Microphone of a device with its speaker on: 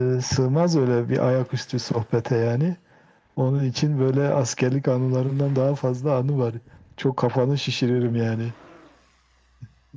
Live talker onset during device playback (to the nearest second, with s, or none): none